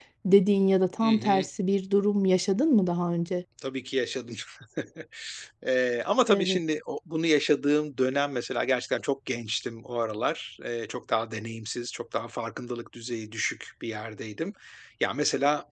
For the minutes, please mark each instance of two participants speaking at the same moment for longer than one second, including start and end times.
none

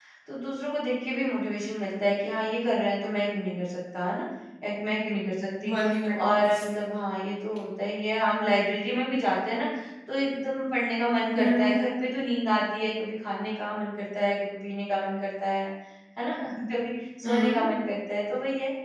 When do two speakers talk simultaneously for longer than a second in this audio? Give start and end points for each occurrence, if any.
none

